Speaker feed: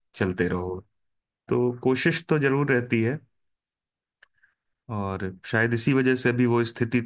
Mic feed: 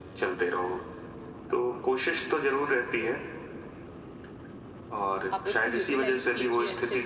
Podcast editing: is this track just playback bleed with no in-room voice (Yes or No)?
No